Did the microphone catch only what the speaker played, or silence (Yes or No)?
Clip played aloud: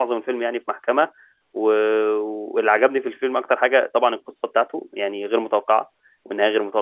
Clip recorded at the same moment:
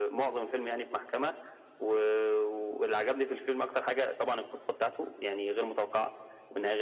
Yes